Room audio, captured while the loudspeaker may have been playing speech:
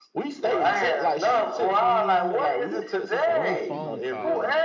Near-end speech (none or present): present